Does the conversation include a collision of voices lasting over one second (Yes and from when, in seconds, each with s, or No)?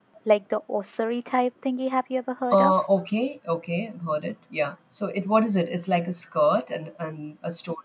No